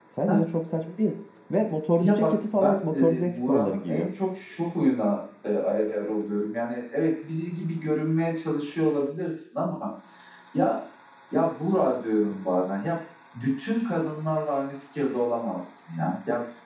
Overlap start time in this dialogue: 2.0 s

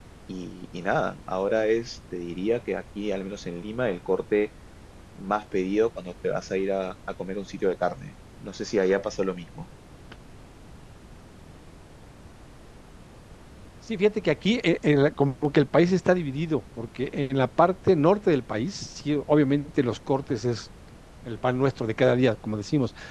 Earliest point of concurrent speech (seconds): none

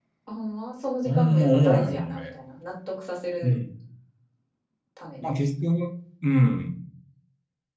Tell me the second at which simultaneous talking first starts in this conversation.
1.1 s

